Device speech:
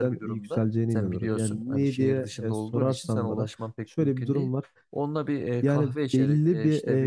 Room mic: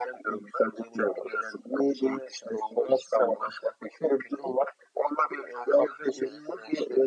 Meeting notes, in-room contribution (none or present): none